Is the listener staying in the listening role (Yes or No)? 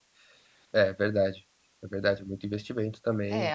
No